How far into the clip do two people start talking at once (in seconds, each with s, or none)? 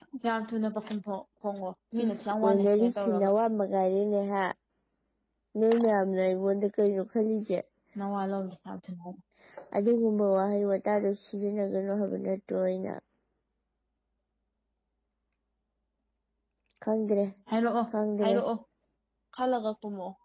2.0 s